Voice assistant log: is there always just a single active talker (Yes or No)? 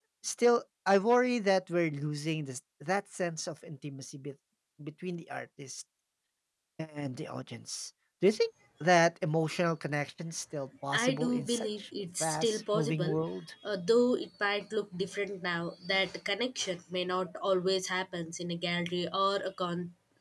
No